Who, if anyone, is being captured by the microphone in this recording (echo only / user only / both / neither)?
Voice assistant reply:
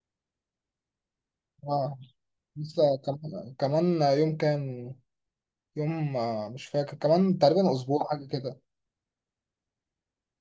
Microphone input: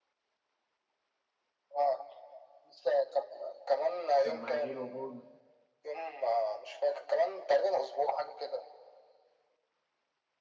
both